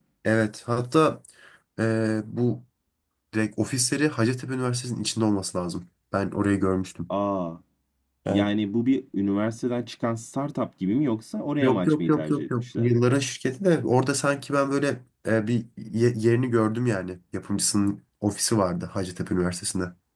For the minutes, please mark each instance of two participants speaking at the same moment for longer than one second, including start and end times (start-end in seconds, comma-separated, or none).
11.6-12.9